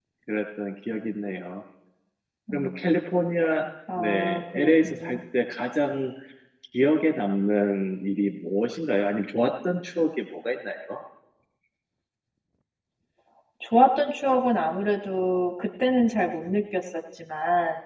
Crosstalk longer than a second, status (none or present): present